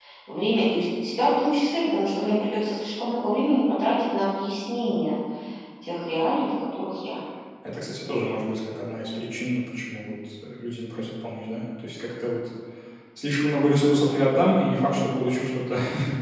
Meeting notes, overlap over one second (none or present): none